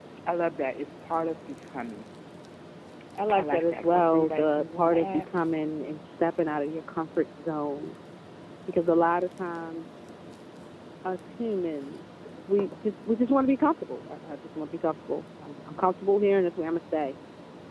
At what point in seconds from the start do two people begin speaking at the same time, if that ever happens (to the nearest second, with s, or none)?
3 s